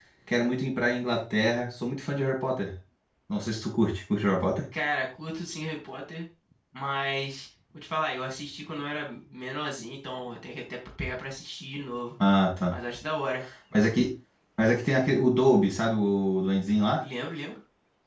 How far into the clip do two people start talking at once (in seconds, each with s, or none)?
none